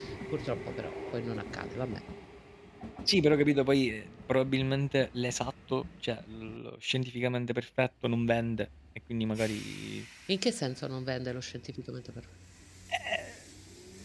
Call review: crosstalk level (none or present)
none